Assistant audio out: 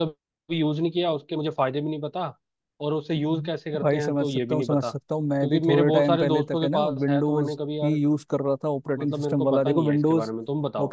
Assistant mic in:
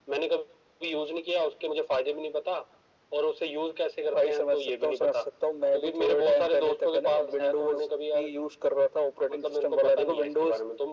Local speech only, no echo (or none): none